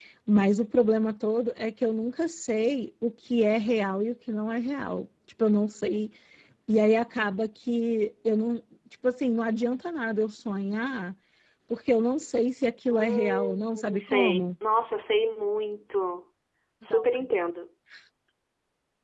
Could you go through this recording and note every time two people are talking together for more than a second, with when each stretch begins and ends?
12.9-14.5

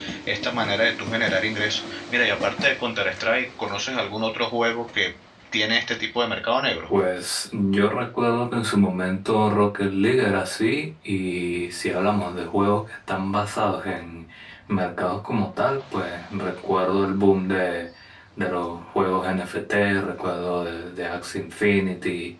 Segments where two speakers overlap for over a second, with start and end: none

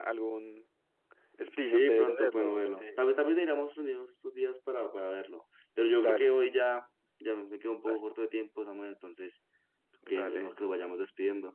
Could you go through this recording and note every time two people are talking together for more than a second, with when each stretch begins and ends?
1.6-3.0

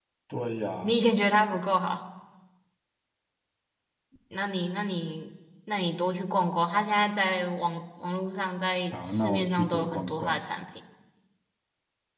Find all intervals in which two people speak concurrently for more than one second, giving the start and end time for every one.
8.9-10.4

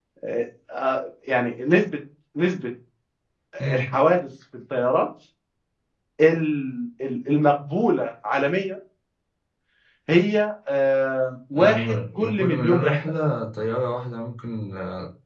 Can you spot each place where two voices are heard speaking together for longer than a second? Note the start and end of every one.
11.5-13.0

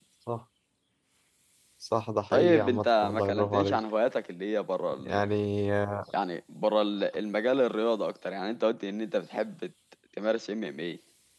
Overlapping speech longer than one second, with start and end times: 2.3-3.8

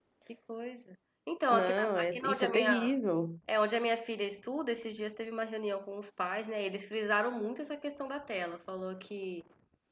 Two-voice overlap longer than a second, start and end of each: 1.5-2.9

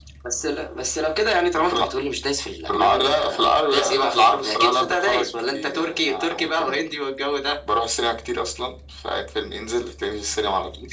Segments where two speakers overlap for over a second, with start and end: 2.7-6.8

